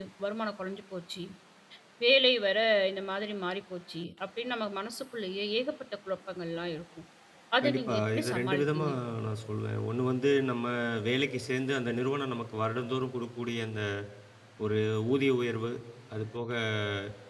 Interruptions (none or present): present